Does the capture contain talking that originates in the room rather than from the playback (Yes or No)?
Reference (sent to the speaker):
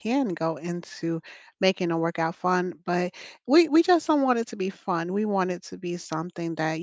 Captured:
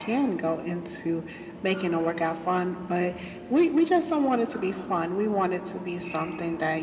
No